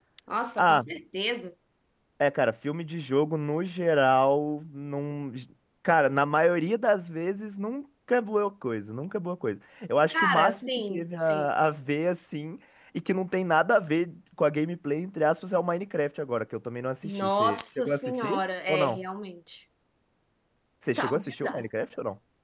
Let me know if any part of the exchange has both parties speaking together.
Yes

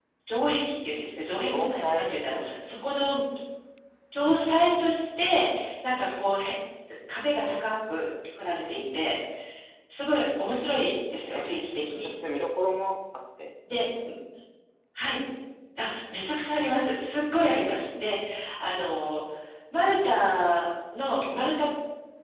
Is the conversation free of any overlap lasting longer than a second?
No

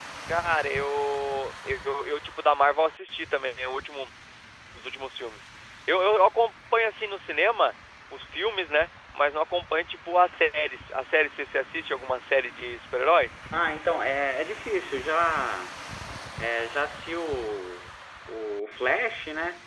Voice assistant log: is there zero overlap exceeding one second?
Yes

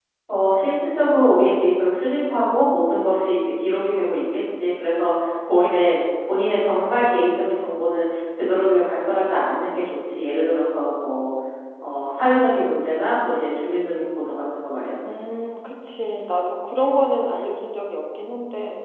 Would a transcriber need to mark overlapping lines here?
No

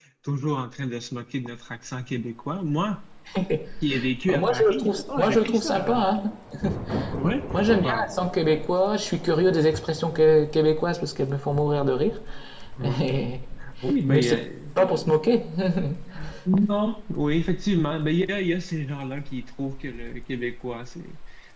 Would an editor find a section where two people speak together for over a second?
Yes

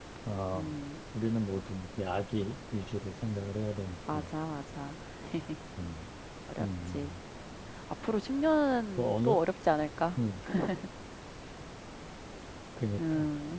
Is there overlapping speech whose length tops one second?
No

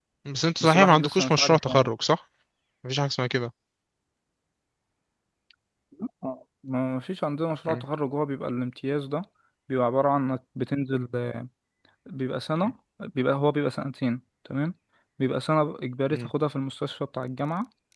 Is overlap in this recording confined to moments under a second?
No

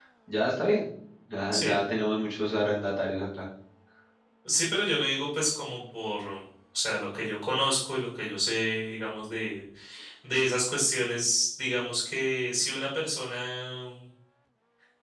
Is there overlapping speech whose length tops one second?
No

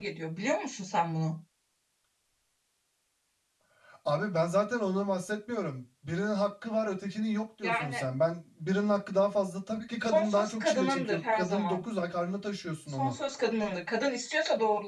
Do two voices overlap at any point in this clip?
Yes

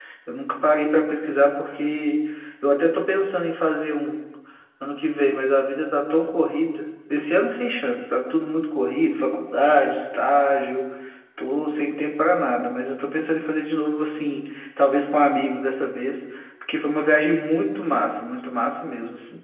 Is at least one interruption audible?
No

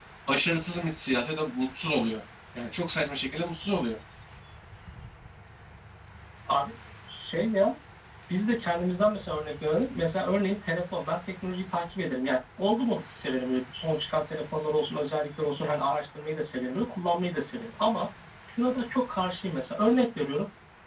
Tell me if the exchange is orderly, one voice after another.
Yes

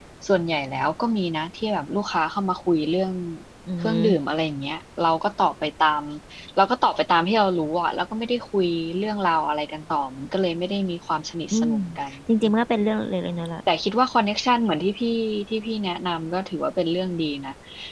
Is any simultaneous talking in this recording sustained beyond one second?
No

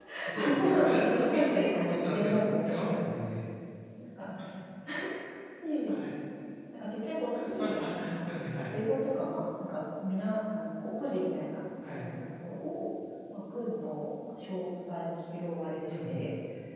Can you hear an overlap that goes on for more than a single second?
Yes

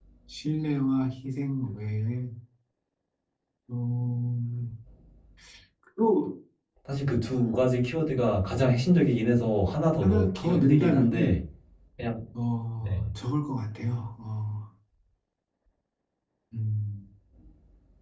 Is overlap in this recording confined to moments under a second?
No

